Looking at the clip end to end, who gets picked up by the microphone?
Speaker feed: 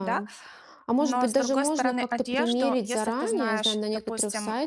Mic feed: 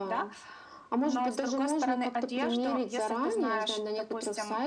echo only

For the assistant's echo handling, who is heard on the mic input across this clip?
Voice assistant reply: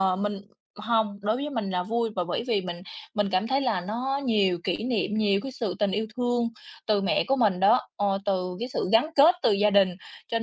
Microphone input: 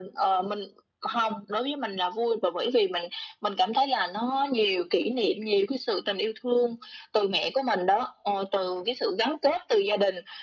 echo only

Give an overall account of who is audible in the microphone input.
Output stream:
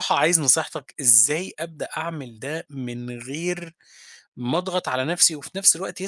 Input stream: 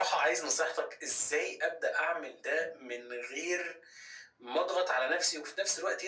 echo only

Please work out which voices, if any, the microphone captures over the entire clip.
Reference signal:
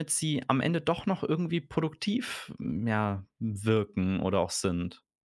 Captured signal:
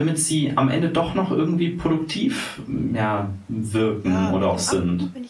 both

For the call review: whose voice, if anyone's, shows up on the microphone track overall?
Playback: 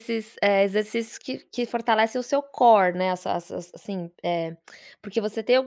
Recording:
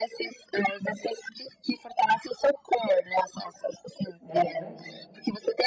both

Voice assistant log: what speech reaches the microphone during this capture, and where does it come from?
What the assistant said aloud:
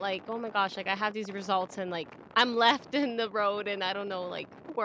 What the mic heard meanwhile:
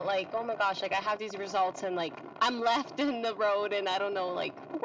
echo only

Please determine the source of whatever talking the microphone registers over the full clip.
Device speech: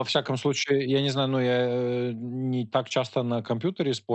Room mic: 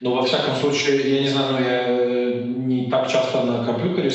echo only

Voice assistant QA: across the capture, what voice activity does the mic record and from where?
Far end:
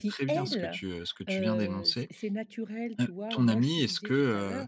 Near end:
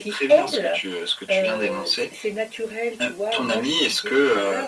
echo only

